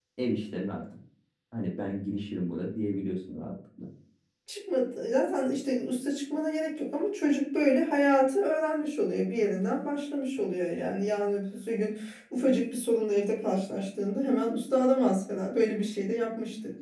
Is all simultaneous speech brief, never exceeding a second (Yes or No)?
Yes